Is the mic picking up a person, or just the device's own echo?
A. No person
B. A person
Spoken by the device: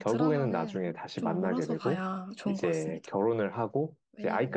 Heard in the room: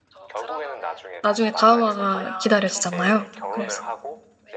B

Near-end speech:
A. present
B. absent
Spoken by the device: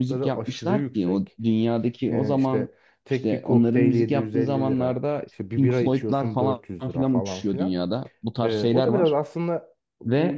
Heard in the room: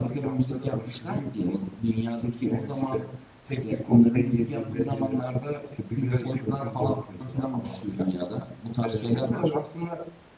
B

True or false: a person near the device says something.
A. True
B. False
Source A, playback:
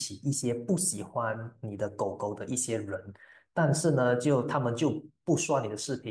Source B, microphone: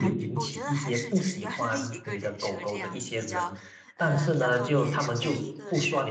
A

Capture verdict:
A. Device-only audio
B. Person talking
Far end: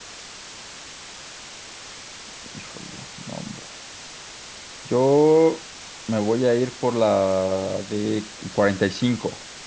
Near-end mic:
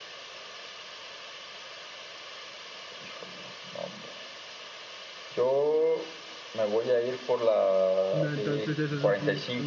B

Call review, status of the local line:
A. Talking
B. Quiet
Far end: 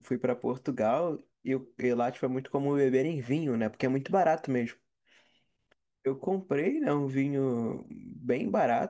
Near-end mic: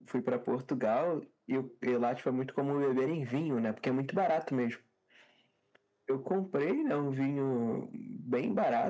B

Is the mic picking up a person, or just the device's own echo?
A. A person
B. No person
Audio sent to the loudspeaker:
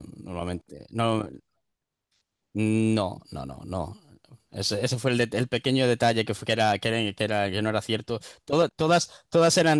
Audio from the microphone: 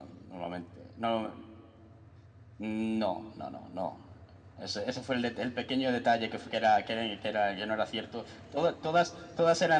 B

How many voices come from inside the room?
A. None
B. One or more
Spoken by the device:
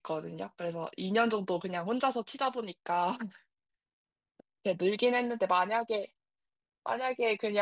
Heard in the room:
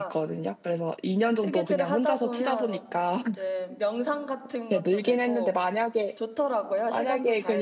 B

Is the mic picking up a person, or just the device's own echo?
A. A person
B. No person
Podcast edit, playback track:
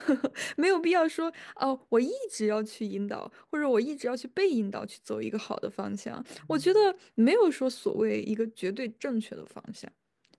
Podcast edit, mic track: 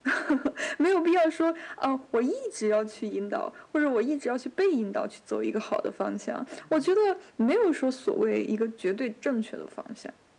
B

